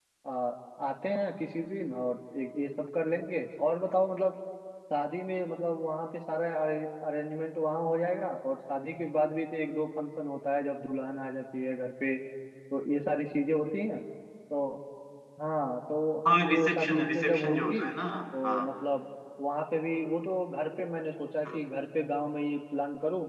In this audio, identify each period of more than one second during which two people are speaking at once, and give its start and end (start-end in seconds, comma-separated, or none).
16.5-17.8